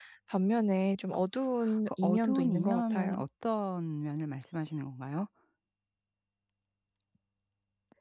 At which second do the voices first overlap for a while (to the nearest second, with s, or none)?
2 s